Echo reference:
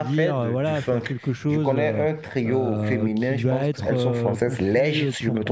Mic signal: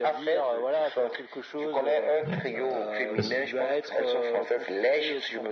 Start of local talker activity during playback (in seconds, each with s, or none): 2.2 s